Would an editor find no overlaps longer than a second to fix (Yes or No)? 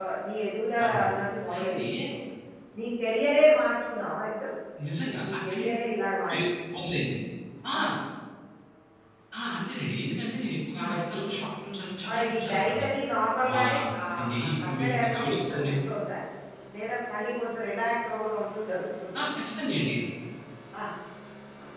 No